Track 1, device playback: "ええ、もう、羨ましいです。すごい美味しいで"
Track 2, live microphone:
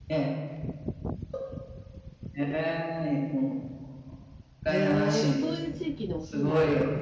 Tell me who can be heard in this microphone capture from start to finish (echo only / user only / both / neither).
both